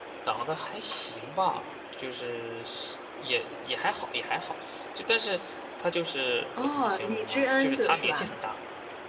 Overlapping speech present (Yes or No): Yes